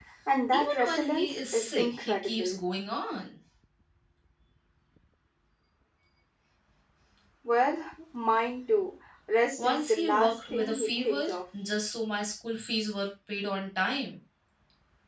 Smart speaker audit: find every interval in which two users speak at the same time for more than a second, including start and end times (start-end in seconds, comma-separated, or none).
0.5-2.6, 9.6-11.4